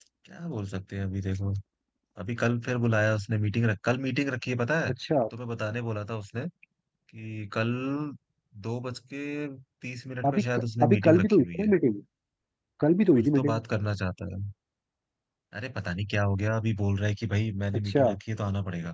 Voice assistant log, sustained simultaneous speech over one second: present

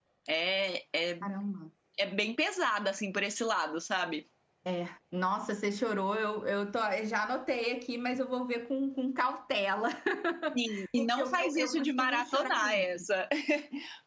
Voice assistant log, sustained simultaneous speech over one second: present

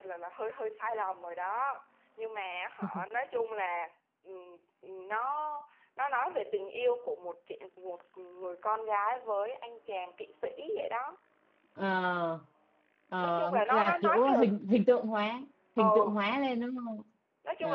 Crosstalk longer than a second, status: present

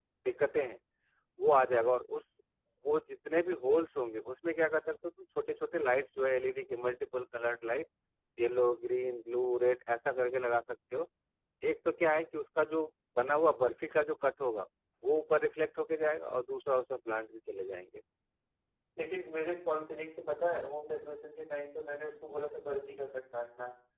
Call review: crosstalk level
none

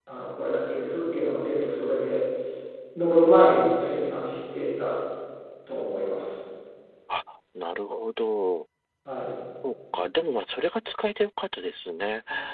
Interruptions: none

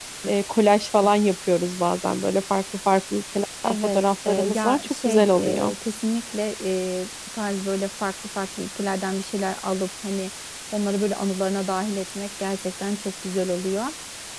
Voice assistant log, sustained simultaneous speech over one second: present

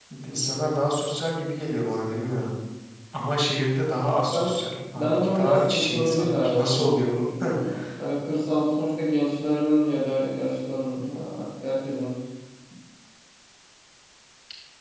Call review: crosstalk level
present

